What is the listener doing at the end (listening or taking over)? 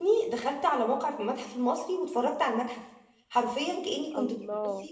listening